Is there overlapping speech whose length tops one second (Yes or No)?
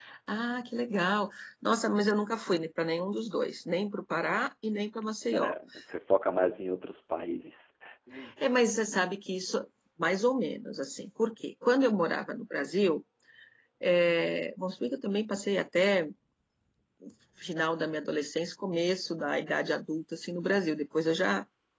No